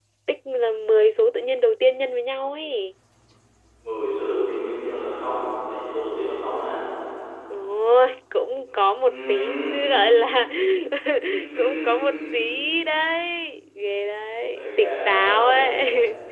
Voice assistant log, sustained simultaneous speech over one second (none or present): present